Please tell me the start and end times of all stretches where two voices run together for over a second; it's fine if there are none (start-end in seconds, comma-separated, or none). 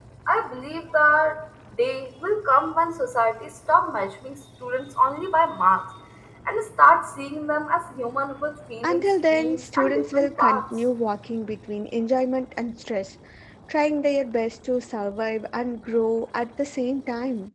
8.8-10.6